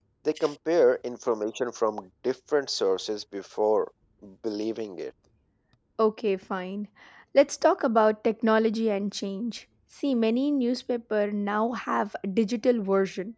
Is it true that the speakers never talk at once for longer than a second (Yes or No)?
Yes